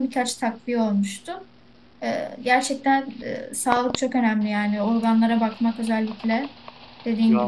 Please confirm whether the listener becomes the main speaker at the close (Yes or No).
Yes